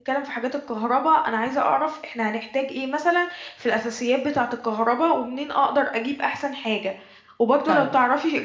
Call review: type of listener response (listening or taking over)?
listening